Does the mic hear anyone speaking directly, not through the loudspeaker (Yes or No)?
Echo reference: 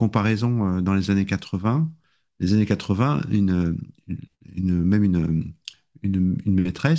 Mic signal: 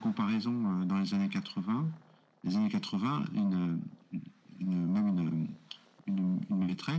No